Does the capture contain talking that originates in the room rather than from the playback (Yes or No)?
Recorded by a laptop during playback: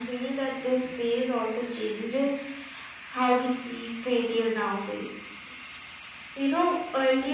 No